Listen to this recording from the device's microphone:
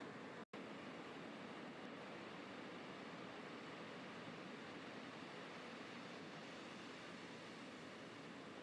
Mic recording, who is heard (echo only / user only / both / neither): neither